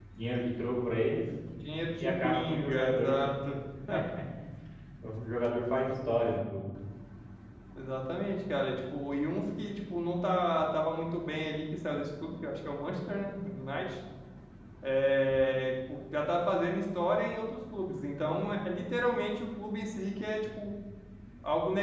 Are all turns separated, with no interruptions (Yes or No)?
No